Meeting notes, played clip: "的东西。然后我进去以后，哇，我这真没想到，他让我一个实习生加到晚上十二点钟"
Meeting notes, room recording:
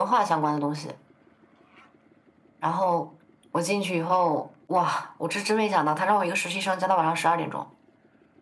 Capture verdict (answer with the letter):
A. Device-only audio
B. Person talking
A